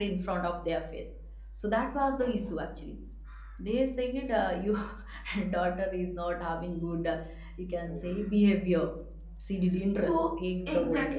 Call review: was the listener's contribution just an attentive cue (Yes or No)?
No